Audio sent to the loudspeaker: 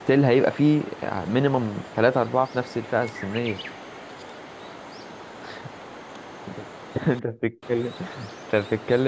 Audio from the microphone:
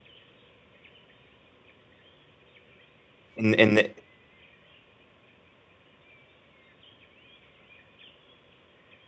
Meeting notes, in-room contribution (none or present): present